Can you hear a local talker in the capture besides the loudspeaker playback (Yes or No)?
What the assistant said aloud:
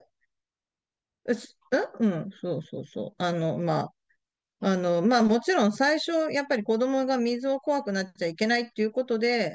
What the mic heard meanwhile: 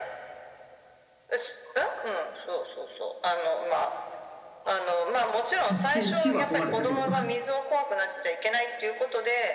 Yes